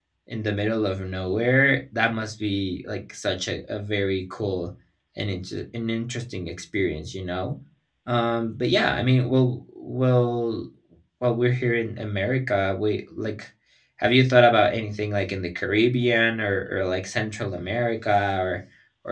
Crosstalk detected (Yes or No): No